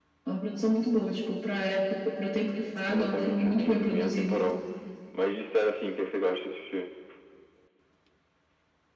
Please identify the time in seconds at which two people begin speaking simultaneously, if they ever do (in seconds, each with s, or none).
2.9 s